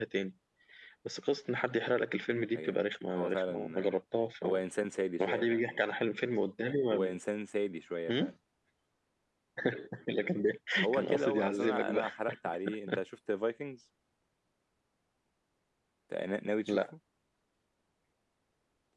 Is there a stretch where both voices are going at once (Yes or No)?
Yes